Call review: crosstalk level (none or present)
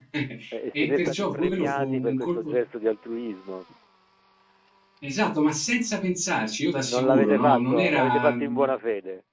present